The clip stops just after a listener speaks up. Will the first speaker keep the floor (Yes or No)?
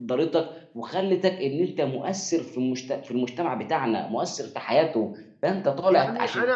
No